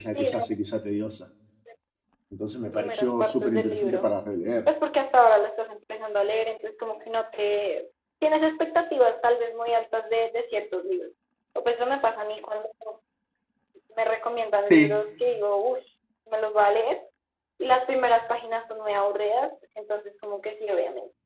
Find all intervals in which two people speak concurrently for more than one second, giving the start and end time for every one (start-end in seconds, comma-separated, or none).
2.7-4.1